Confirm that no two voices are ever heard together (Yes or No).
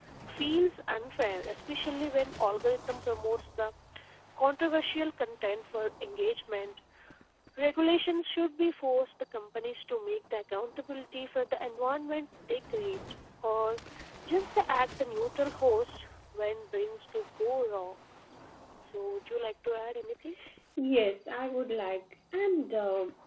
Yes